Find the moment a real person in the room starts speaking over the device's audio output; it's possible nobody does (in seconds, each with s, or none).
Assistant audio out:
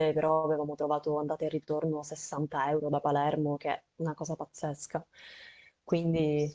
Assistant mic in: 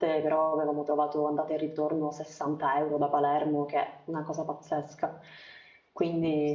none